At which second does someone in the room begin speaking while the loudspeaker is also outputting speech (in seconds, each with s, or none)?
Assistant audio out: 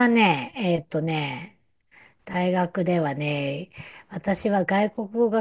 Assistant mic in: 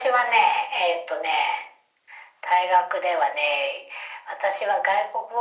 none